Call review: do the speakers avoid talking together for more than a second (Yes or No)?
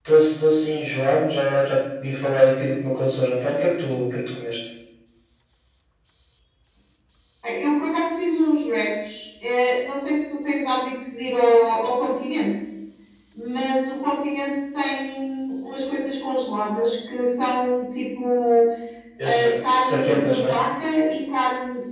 No